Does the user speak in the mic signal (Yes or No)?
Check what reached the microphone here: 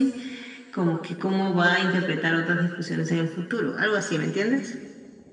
No